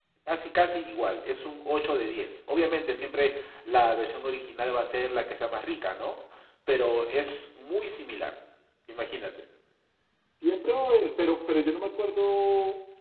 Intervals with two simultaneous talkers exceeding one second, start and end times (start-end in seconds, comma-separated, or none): none